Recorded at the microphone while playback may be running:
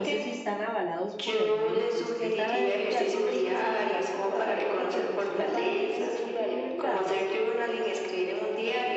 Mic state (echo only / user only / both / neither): both